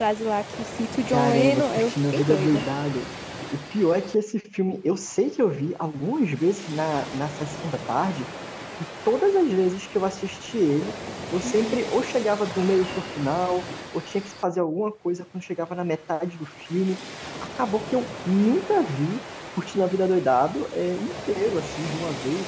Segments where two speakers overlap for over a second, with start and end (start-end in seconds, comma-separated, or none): 1.1-2.6